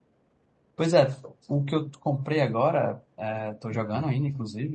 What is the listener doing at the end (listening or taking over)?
listening